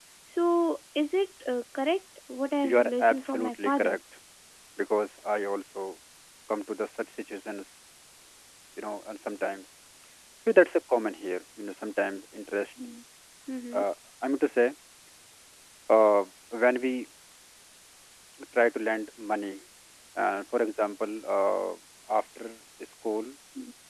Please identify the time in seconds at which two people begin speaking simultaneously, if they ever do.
3 s

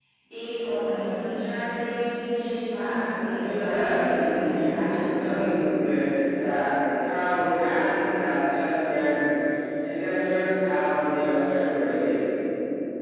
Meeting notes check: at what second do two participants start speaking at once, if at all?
3 s

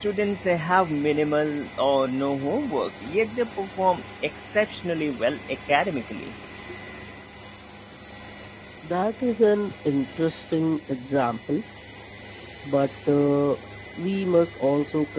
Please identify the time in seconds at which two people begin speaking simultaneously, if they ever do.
none

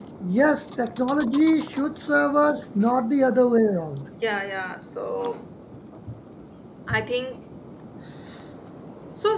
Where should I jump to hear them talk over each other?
none

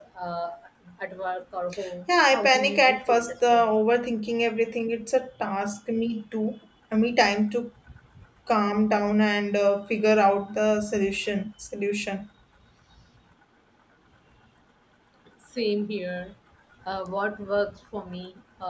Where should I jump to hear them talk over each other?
2 s

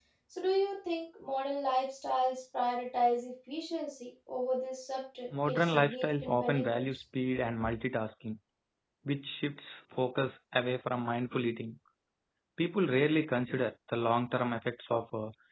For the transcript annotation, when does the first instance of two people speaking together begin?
5 s

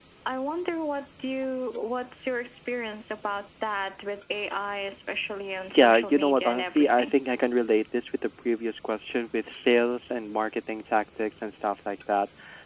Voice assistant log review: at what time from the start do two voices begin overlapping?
6 s

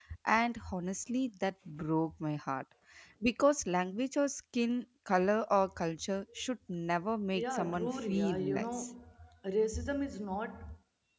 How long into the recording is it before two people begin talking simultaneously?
7 s

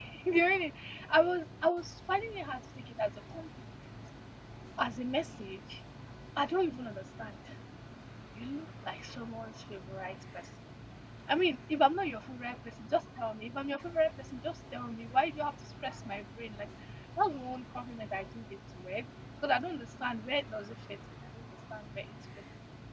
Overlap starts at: none

